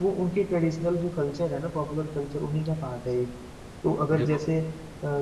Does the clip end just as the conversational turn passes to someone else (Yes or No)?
No